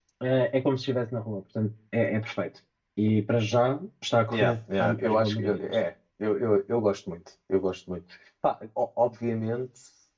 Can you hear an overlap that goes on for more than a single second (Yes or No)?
Yes